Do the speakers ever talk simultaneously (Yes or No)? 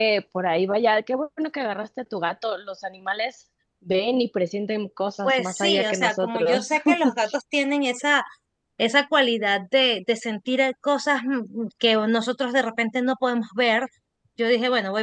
Yes